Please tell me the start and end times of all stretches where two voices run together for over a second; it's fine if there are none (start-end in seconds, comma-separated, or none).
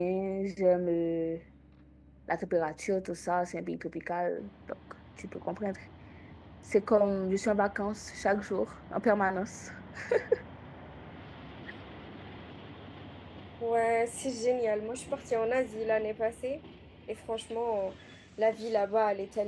none